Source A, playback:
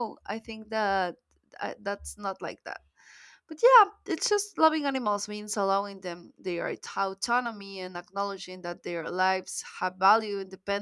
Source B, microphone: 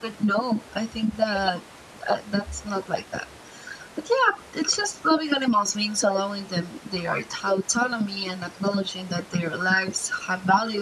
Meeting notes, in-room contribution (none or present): none